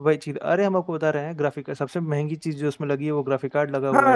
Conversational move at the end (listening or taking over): taking over